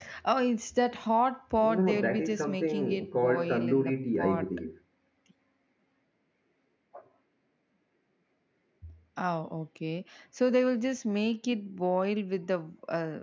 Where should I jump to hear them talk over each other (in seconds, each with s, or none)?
1.6 s